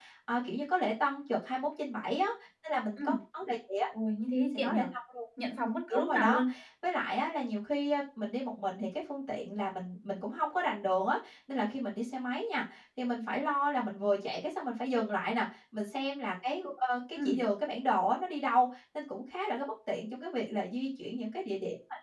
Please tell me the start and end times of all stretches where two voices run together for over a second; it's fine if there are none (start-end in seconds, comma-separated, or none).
none